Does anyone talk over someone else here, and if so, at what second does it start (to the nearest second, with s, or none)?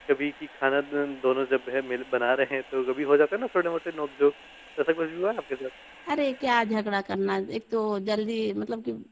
none